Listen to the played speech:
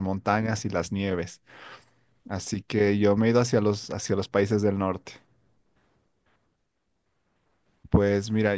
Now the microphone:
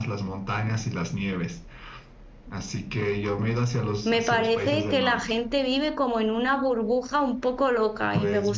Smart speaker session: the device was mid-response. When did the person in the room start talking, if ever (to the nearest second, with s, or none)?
4 s